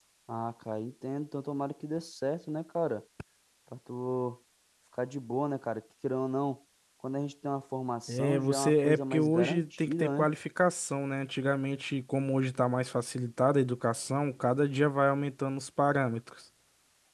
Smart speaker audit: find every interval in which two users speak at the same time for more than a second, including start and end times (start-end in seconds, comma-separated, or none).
8.1-10.3